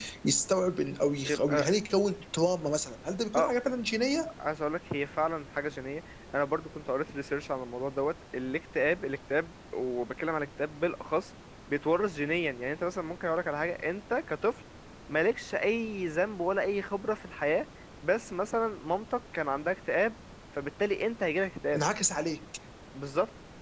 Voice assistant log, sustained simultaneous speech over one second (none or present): none